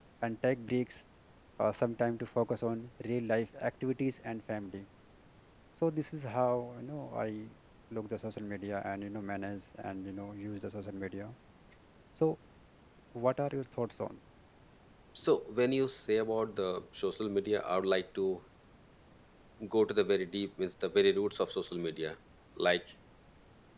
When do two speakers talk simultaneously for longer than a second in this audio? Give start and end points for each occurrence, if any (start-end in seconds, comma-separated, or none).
none